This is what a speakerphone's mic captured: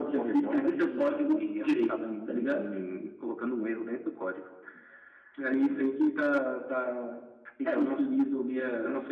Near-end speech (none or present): none